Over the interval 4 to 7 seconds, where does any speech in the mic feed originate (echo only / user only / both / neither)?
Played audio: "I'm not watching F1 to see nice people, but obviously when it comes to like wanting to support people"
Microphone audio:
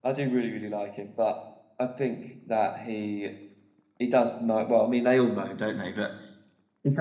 user only